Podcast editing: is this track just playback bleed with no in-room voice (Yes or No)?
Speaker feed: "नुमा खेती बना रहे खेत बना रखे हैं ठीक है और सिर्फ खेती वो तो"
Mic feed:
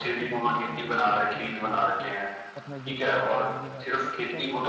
No